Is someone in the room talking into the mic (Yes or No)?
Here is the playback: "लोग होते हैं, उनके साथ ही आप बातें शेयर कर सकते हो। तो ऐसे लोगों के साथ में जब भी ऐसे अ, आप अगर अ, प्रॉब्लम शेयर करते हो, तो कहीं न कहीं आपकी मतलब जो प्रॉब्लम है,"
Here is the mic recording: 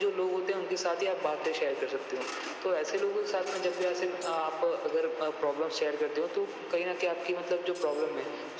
No